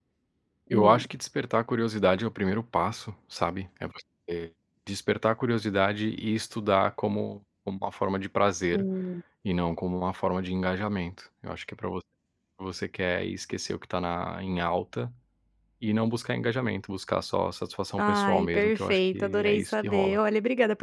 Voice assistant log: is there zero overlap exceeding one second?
No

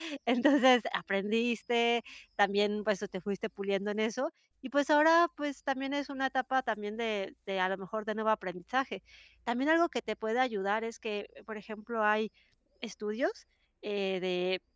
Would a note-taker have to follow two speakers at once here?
No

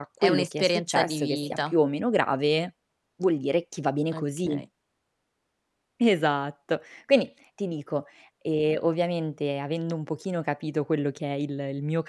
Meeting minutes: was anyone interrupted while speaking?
Yes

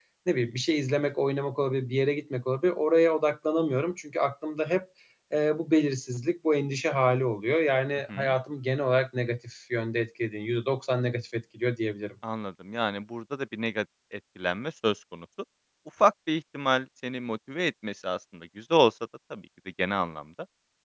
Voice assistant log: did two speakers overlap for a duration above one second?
No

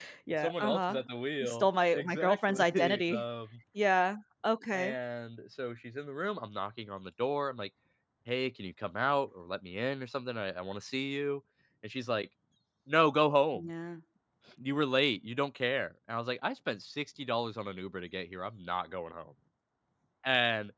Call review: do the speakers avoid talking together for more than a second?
No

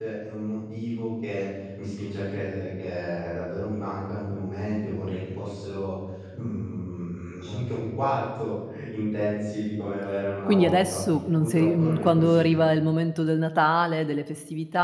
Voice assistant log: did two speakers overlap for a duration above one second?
Yes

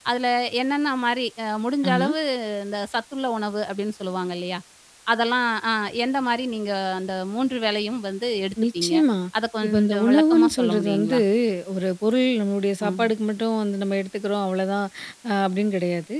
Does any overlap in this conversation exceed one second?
Yes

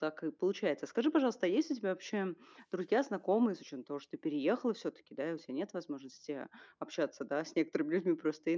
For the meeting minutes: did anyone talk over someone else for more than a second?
No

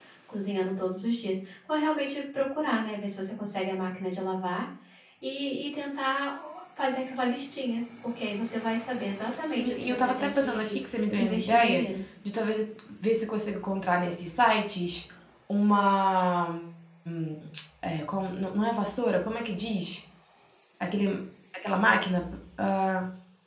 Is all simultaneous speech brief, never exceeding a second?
No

